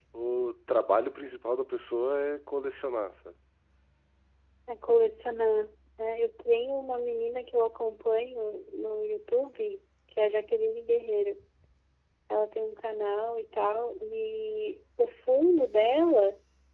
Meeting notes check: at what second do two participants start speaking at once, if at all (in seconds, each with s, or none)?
none